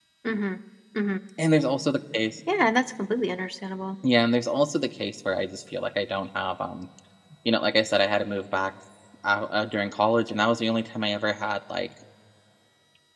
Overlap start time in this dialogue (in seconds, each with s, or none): none